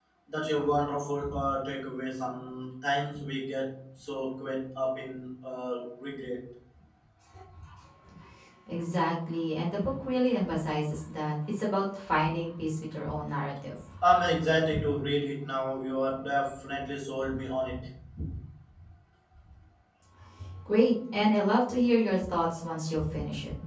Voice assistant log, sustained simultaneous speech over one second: none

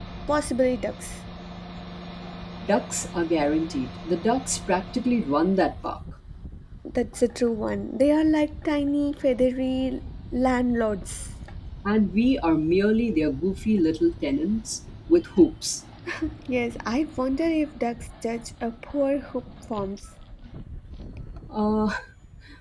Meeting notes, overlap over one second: none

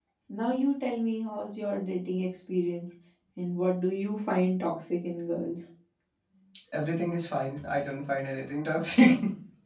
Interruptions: none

